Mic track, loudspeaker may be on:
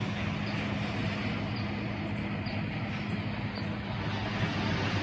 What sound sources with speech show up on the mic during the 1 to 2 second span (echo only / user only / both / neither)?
neither